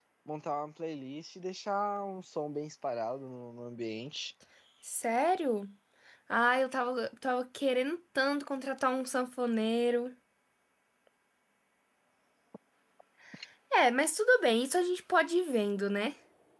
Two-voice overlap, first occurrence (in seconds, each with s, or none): none